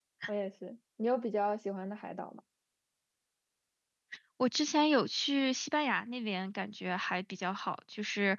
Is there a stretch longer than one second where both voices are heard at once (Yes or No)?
No